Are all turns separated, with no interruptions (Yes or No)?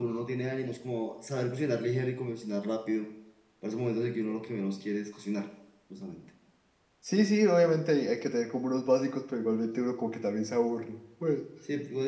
Yes